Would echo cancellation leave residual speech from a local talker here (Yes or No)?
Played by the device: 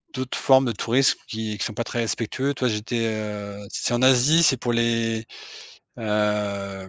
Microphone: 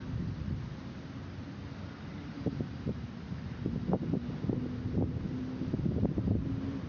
No